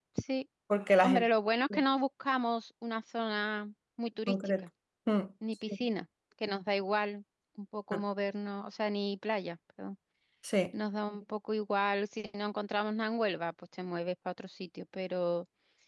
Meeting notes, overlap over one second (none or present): none